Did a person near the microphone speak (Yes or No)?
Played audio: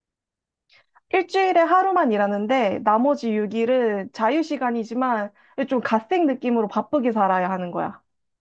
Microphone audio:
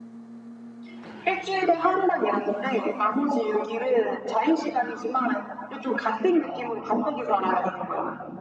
No